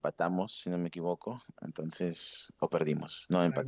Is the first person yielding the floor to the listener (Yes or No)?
Yes